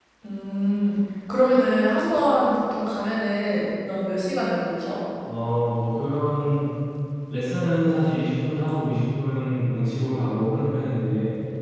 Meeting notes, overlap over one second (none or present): none